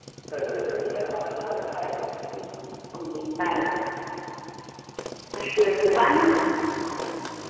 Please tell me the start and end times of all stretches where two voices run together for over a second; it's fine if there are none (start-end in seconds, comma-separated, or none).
none